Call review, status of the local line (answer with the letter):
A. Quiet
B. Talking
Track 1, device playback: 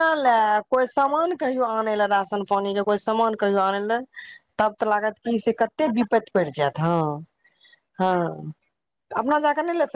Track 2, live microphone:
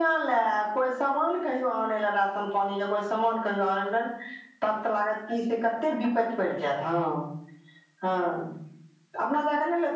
A